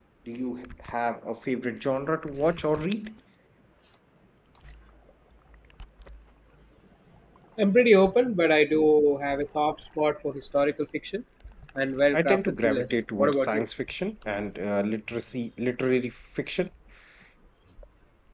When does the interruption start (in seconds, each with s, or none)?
12.1 s